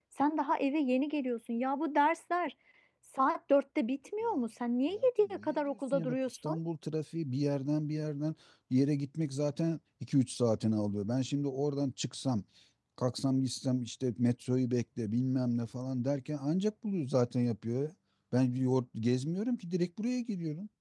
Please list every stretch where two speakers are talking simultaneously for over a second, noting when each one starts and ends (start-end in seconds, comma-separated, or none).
4.9-6.6